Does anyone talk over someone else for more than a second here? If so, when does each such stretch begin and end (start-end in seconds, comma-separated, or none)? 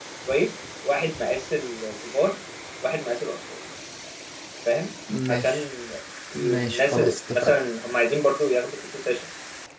6.3-7.6